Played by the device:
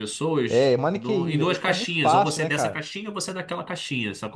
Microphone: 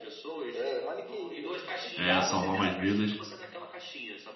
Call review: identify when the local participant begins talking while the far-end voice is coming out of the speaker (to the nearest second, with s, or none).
2 s